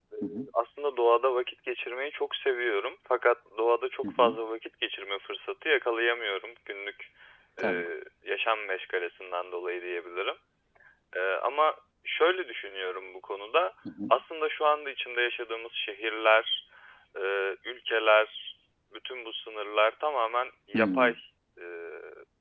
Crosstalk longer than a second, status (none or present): none